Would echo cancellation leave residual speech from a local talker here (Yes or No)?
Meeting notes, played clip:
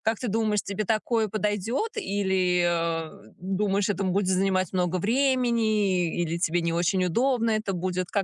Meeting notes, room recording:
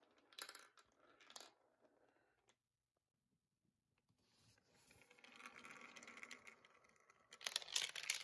No